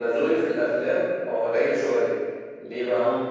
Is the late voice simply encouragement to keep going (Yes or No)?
Yes